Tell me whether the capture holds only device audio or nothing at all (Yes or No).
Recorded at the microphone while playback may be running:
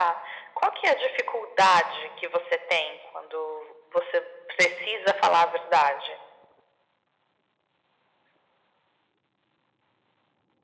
Yes